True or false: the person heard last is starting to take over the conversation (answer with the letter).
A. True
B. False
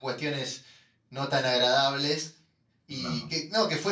B